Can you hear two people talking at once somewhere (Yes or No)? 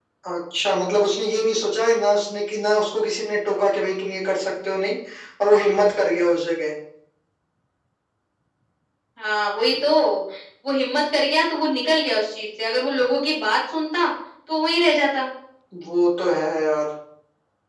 No